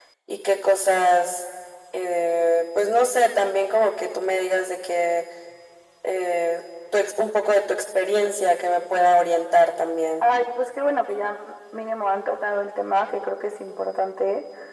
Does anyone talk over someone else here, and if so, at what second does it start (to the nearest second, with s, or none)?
none